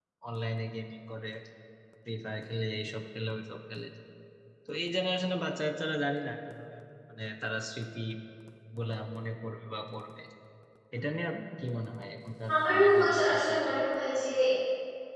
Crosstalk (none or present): present